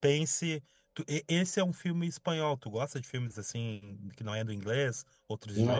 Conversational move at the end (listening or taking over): taking over